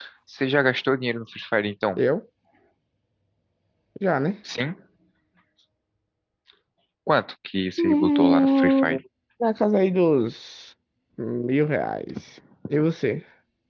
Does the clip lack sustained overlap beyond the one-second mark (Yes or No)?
No